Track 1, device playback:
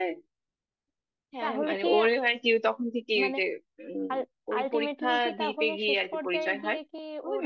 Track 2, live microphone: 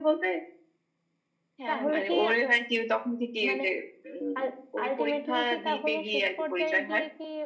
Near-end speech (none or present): none